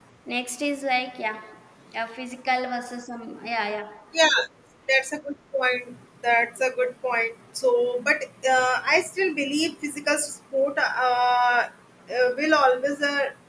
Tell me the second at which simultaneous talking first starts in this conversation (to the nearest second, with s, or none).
none